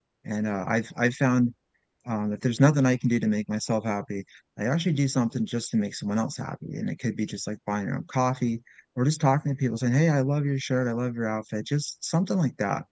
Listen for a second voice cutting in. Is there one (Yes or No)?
No